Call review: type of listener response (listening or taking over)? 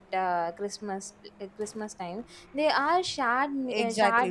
taking over